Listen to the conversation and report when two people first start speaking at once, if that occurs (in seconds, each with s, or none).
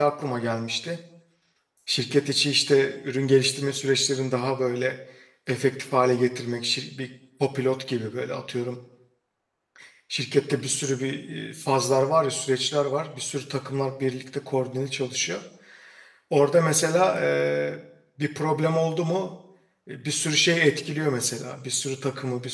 none